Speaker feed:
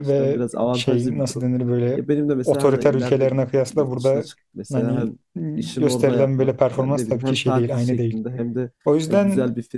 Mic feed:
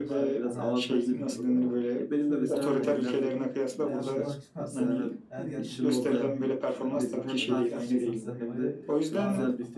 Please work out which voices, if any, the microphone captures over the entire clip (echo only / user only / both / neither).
both